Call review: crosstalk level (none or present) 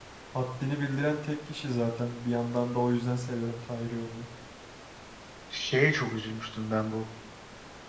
none